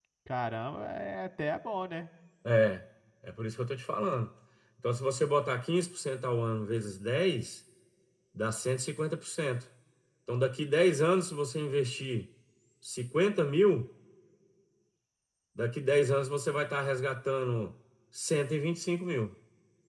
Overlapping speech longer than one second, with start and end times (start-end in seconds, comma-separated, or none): none